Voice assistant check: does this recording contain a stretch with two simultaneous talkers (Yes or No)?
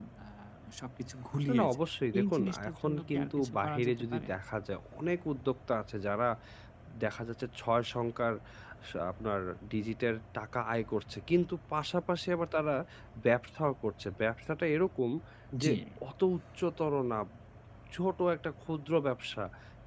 Yes